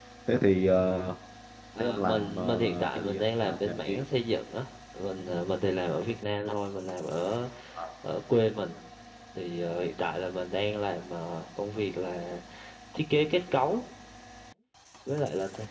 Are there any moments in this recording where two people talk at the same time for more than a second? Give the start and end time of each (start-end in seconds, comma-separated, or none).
1.8-4.0